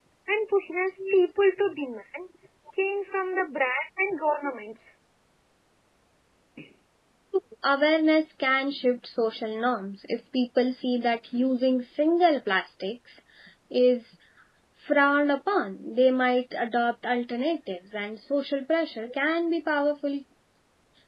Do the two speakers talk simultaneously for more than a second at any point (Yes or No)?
No